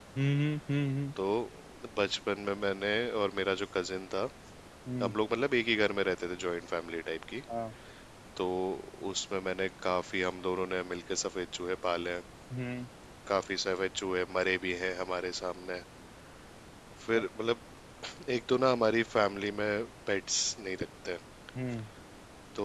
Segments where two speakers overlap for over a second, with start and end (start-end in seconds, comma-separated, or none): none